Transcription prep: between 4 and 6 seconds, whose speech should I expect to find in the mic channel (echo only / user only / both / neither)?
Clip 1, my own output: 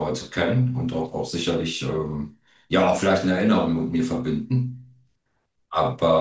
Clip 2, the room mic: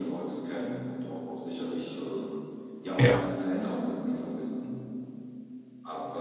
echo only